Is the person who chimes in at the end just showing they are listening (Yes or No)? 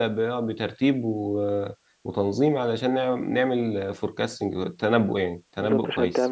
No